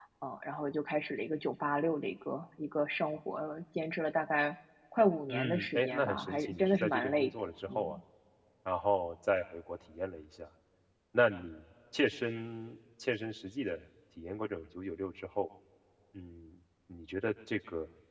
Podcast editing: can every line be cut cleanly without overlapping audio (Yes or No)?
No